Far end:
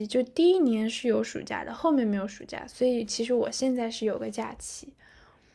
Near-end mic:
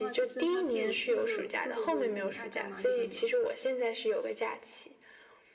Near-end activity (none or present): present